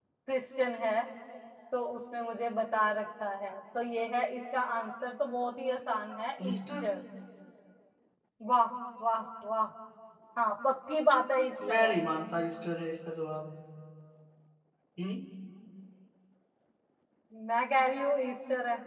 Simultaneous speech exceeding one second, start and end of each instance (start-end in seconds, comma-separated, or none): none